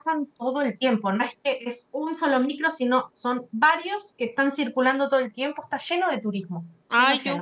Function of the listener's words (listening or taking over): taking over